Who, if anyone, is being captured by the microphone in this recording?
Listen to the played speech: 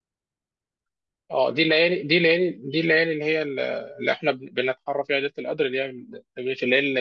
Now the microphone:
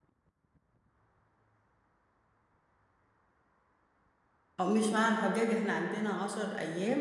user only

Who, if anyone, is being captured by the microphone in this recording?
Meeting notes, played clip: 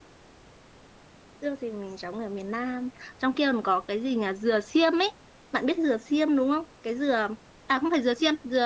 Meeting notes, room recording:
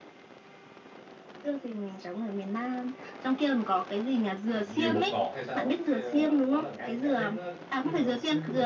both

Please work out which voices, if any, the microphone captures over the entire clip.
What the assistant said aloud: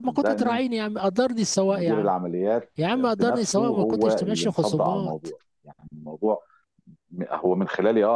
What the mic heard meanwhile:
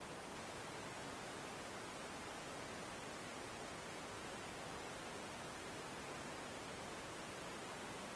neither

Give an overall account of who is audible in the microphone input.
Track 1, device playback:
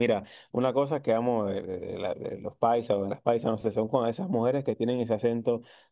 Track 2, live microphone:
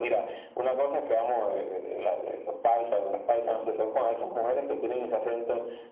echo only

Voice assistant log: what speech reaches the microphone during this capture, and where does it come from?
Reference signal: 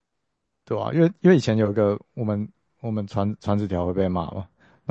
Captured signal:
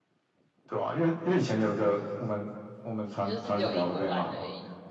both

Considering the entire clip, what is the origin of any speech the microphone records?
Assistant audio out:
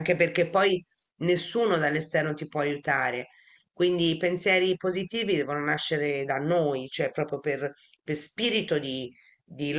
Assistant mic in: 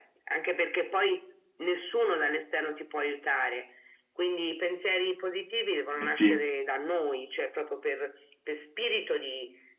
both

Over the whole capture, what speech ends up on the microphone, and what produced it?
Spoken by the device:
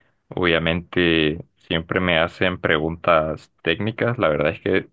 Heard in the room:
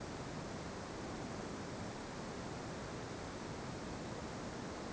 neither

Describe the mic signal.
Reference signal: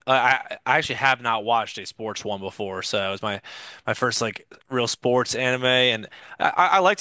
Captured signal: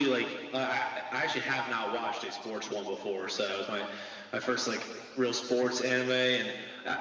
echo only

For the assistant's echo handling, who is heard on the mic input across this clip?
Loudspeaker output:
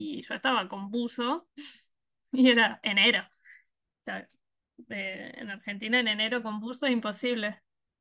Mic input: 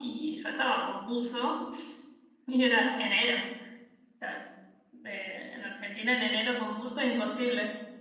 echo only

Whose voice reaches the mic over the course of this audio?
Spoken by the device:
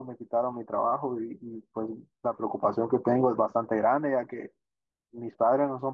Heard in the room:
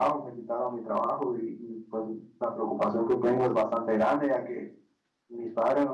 echo only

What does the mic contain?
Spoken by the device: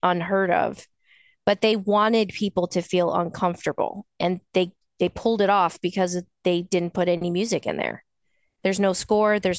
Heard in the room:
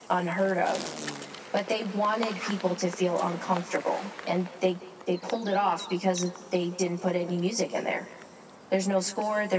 echo only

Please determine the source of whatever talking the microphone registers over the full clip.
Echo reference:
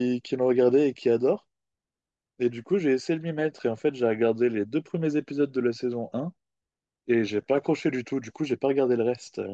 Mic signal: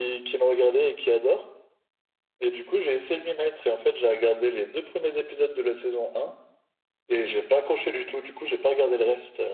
echo only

